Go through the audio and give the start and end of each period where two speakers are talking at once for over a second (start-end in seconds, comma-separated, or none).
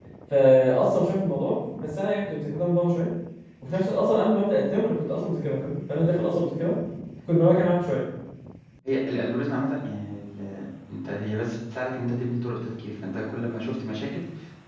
none